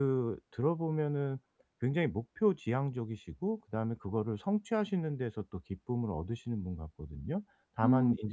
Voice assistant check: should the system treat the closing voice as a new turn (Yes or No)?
No